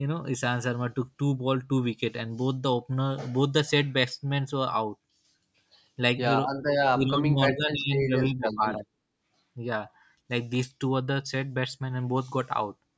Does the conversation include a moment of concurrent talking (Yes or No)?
Yes